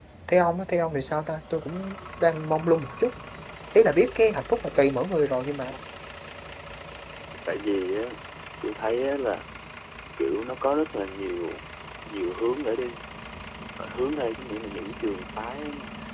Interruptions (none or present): none